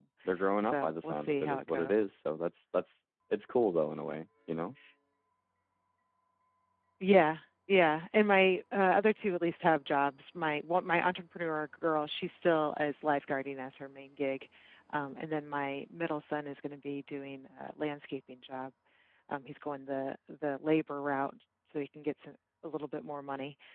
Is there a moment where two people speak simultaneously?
Yes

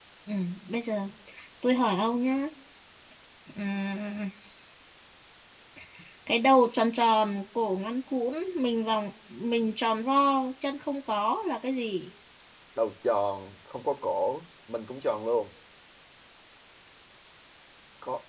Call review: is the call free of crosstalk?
Yes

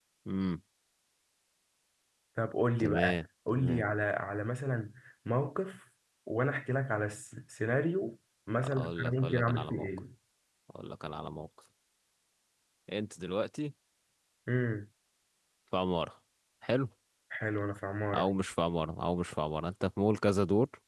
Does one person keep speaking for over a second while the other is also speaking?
Yes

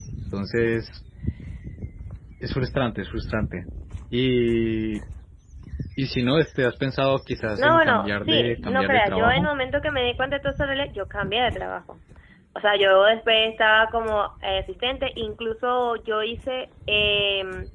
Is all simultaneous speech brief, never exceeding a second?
No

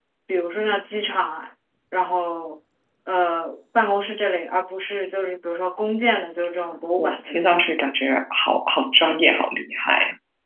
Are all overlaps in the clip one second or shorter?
Yes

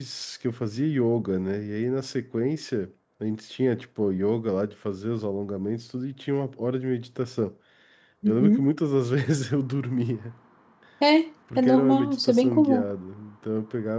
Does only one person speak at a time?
No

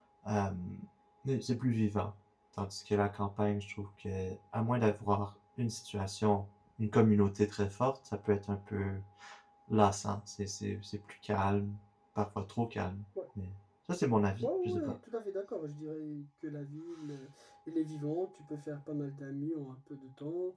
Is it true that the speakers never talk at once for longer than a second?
Yes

